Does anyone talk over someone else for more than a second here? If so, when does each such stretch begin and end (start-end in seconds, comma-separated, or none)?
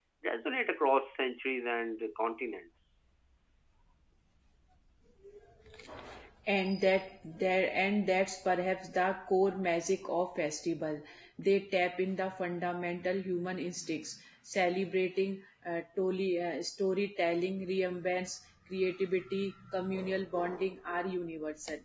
none